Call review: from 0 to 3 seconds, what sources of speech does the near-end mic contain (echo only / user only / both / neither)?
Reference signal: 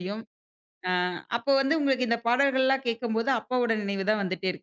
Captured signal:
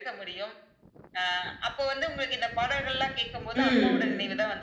echo only